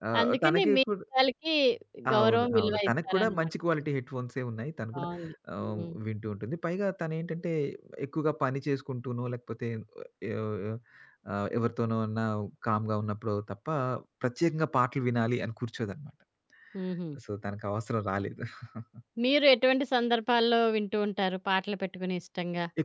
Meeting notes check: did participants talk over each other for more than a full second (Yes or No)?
Yes